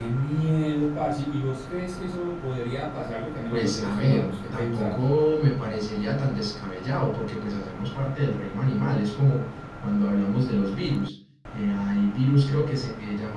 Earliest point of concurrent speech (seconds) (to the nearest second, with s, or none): 4 s